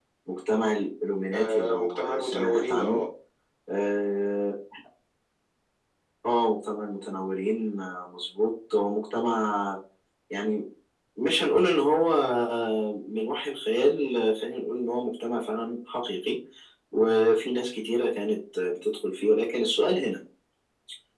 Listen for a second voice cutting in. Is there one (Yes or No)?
Yes